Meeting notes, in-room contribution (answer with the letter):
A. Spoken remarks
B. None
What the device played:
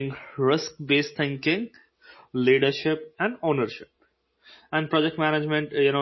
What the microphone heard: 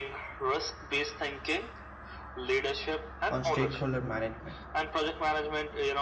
A